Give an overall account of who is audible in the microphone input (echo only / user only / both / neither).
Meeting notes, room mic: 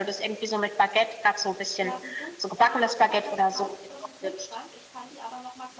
both